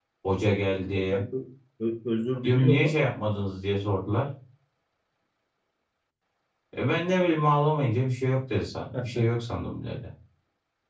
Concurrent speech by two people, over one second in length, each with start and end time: none

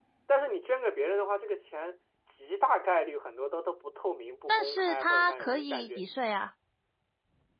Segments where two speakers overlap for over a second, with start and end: 4.5-6.0

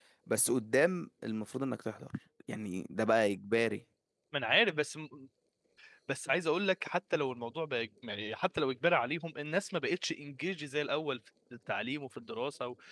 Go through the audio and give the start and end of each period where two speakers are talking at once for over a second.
none

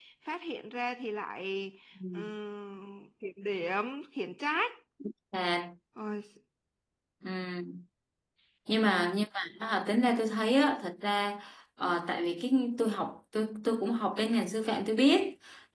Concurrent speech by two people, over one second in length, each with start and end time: none

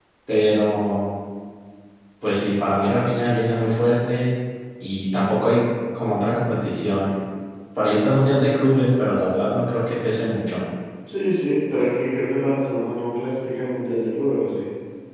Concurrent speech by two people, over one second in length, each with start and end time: none

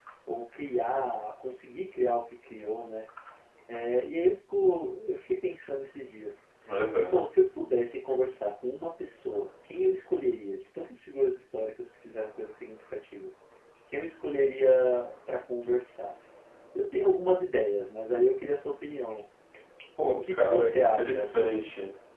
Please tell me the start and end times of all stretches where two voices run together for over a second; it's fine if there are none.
20.1-21.7

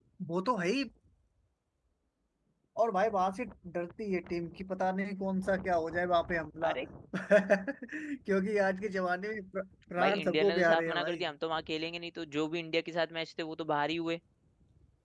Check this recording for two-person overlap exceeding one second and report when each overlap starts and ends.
10.0-11.2

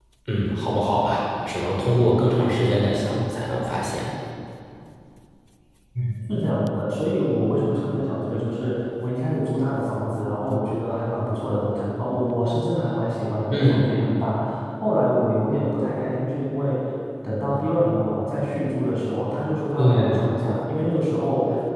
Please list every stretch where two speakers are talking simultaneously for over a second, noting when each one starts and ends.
none

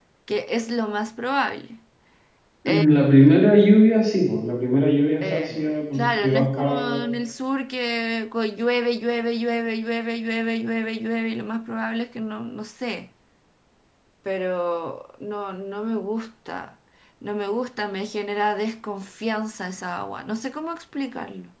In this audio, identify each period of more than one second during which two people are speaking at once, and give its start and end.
5.2-7.1

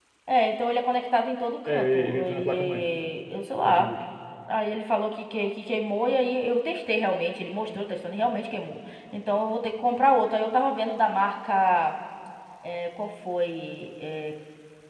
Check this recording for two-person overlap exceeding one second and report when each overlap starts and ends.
1.6-2.8

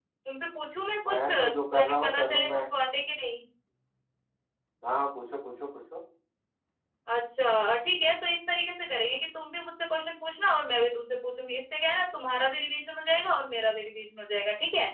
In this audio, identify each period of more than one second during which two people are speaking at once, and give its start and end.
1.1-2.6

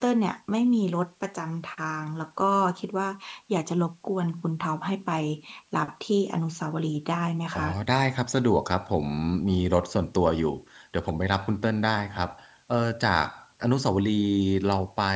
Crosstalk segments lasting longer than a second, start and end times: none

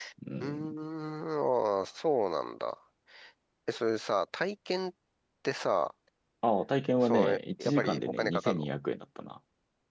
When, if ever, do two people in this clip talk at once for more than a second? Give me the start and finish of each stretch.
7.0-8.7

